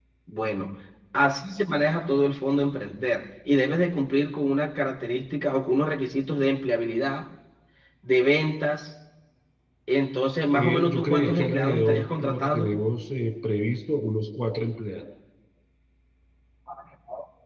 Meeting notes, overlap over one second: present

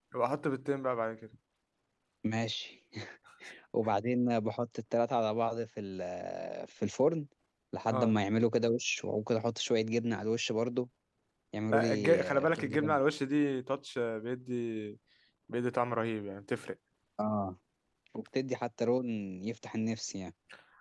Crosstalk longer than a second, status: present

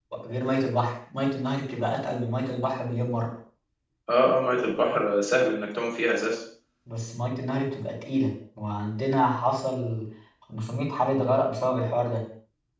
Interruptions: none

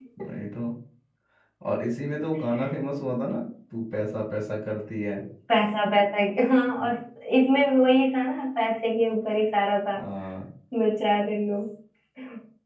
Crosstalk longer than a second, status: none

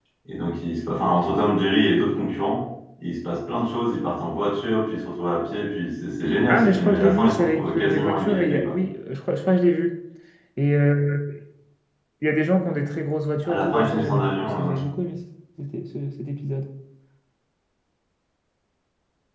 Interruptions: present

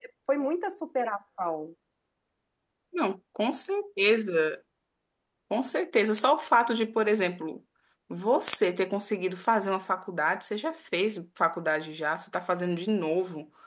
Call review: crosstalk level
none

